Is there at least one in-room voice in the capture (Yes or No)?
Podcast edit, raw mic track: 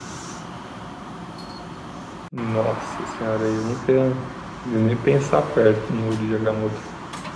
Yes